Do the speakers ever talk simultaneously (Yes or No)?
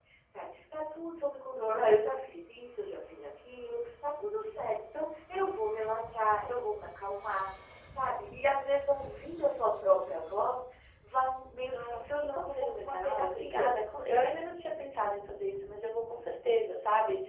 Yes